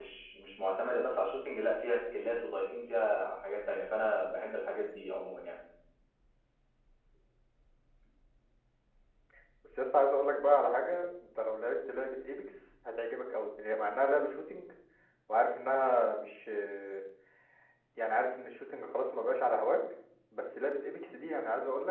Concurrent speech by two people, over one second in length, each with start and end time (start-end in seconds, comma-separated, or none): none